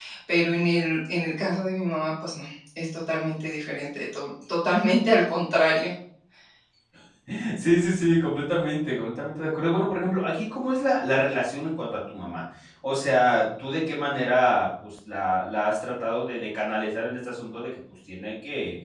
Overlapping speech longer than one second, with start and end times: none

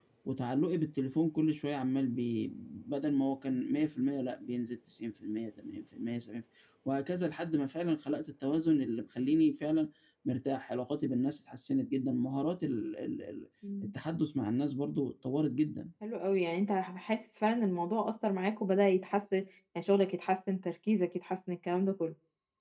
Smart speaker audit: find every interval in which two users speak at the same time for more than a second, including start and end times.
none

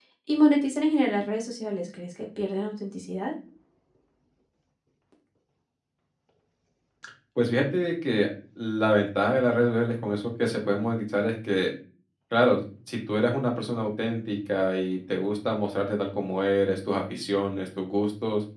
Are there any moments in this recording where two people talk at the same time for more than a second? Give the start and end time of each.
none

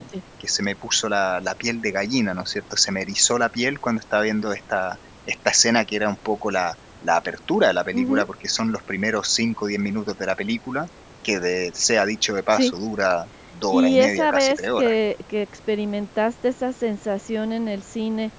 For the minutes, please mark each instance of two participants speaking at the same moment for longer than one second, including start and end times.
13.7-14.9

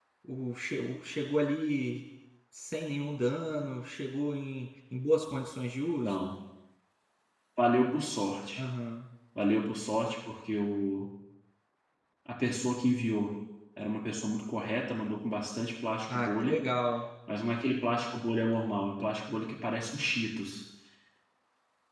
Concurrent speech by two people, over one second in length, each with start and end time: none

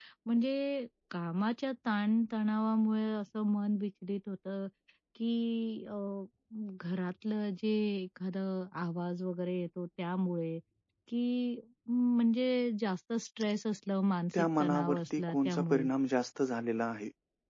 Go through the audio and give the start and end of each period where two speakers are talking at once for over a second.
14.3-15.9

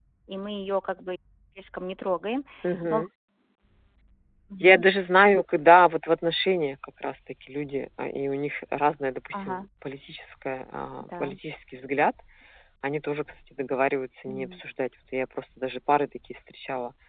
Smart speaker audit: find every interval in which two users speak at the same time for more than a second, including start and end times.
none

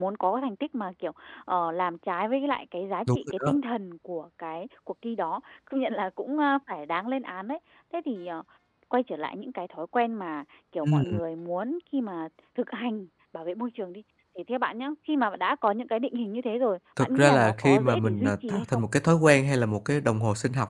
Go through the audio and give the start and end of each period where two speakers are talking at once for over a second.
17.0-18.8

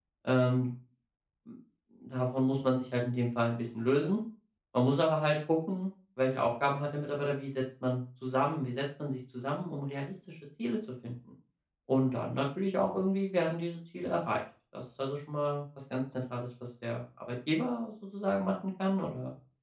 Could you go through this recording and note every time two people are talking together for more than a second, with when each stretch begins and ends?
none

